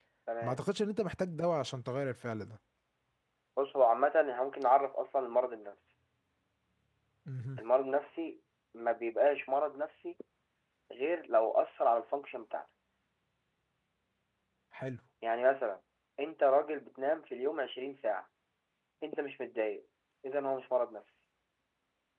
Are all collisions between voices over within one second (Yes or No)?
Yes